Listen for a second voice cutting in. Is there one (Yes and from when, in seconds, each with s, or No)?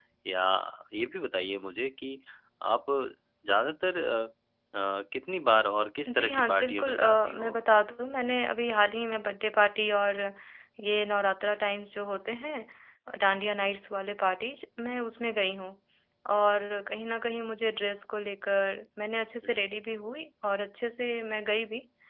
Yes, from 6.0 s